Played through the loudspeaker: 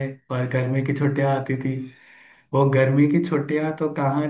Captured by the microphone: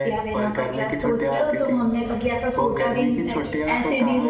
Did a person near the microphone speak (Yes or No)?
Yes